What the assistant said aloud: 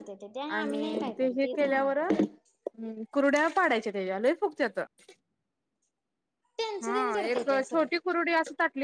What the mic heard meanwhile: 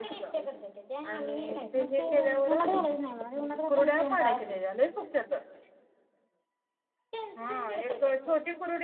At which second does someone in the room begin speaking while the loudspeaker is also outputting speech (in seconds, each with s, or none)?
1.8 s